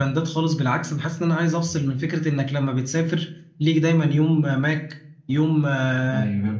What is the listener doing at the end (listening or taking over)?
listening